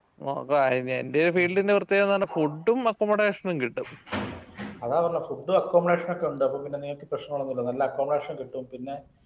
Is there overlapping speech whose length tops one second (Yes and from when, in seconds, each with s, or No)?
No